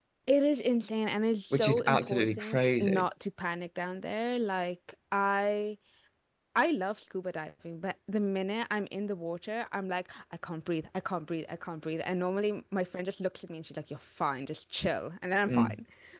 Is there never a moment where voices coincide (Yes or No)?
No